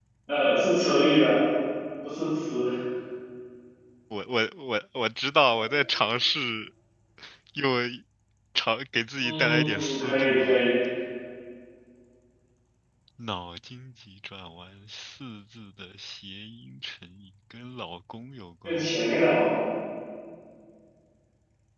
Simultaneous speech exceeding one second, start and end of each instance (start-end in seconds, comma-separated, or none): 9.2-10.6